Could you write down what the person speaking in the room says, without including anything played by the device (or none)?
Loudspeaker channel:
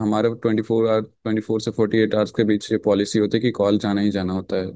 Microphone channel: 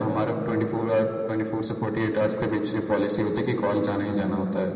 none